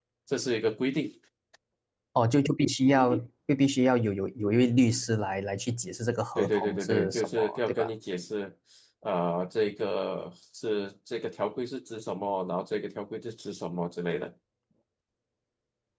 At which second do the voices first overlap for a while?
6.3 s

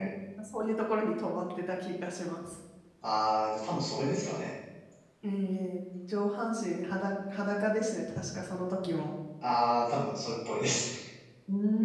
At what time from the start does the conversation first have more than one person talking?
none

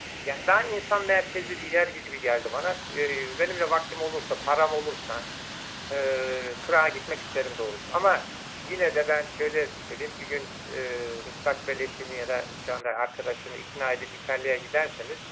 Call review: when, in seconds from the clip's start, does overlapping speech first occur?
none

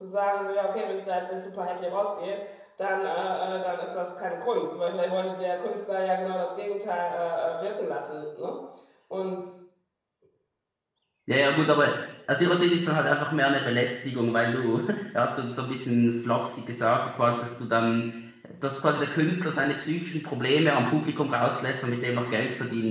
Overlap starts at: none

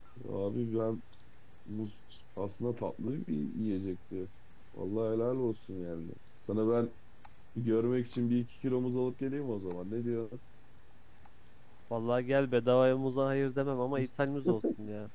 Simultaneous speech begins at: none

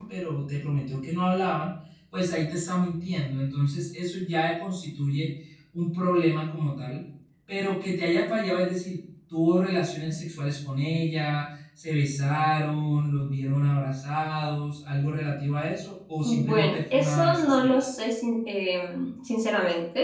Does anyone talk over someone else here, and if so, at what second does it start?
16.2 s

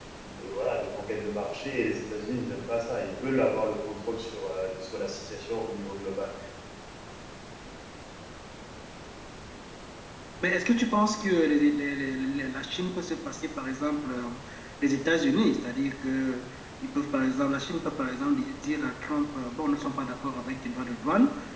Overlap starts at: none

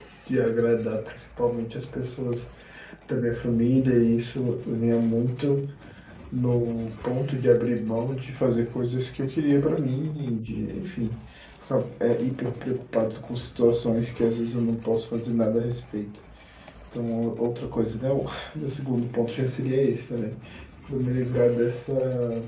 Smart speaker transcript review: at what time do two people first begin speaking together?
none

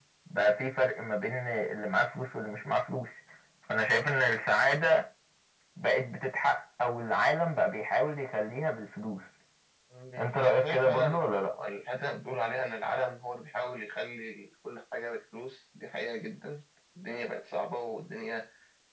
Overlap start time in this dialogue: 10.2 s

